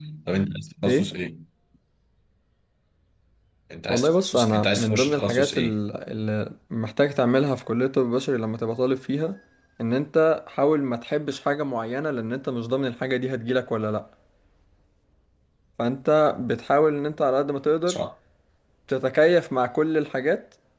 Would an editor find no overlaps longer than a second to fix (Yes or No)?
No